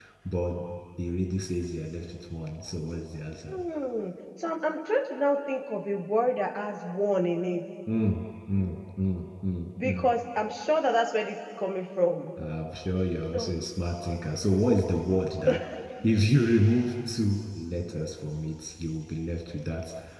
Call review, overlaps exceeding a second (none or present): none